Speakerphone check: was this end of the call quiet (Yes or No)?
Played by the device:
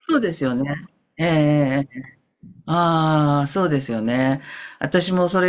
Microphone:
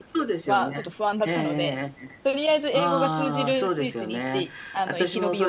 No